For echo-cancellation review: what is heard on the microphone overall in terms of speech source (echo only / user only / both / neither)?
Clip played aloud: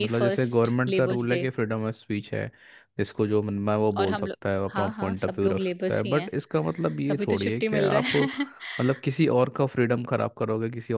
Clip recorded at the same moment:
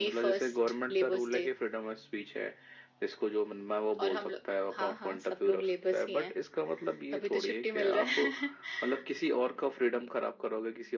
echo only